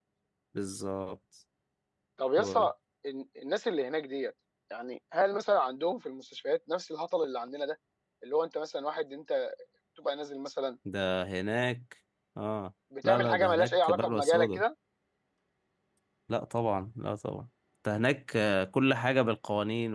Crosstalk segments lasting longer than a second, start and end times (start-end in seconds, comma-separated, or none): 13.0-14.6